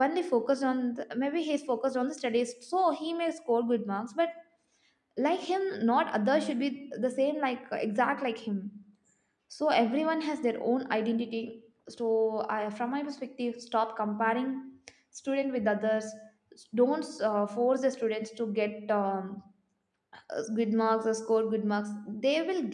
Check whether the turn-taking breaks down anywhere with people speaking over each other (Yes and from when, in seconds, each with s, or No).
No